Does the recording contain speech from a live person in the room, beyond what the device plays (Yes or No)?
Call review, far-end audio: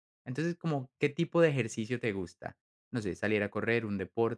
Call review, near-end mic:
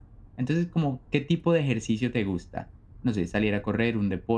No